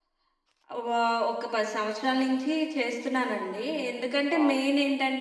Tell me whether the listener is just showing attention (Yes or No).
Yes